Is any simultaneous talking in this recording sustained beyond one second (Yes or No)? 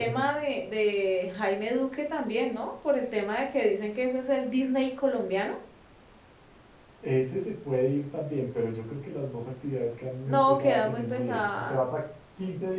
Yes